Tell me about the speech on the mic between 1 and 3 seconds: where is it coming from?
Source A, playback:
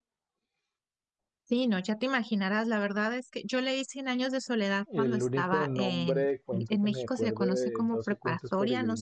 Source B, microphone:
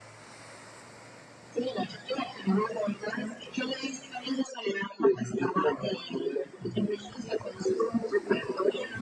echo only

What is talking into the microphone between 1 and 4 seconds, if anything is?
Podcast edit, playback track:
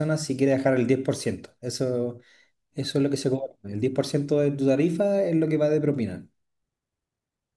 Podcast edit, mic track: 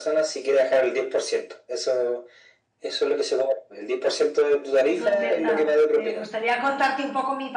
echo only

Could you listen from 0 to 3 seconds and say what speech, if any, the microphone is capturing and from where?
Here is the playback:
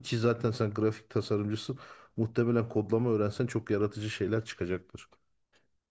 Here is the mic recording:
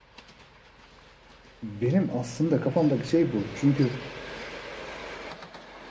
user only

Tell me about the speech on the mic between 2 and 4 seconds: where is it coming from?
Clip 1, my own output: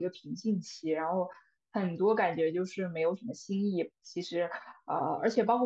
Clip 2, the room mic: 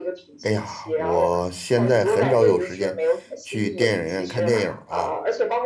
both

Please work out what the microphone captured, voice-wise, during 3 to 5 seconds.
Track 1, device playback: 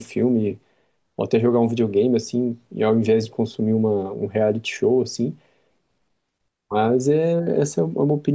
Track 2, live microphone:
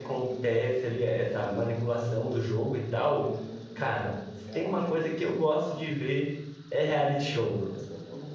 both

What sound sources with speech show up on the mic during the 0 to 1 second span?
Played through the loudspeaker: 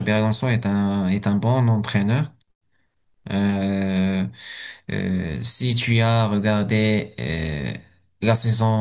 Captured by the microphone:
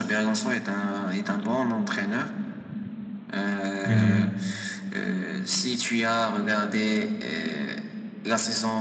echo only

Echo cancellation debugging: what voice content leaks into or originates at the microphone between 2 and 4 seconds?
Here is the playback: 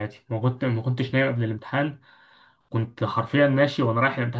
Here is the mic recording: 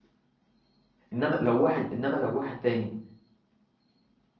user only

